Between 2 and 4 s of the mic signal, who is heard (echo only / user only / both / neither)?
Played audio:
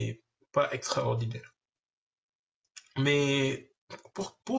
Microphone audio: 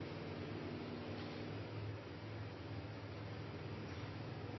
neither